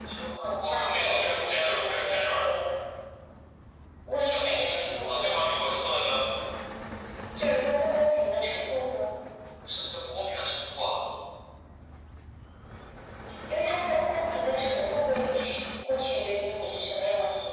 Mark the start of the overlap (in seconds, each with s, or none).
0.7 s